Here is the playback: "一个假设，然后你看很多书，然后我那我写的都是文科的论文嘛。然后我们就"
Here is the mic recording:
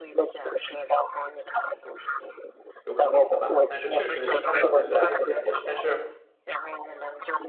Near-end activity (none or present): present